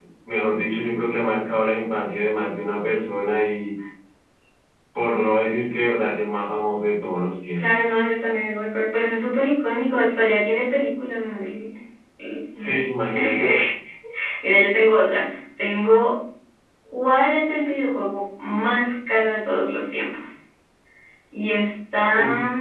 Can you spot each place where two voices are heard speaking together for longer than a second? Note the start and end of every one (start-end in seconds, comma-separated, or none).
none